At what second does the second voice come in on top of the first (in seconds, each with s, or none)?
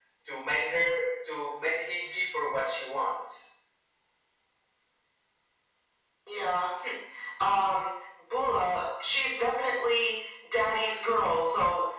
none